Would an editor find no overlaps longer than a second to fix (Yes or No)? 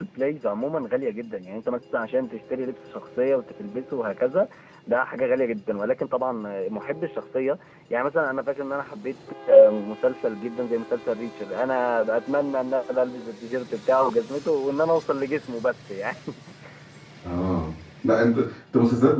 Yes